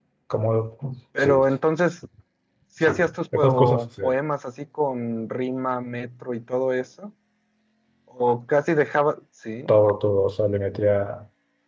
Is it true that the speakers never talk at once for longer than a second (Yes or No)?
No